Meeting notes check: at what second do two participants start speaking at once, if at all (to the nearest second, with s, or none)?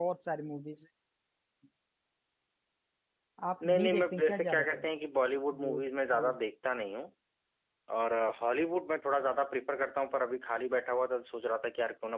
4 s